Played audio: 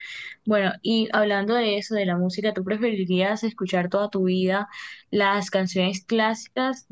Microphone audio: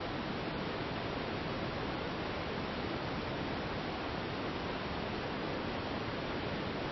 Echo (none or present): none